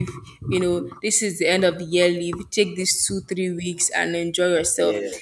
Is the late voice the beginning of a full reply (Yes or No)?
No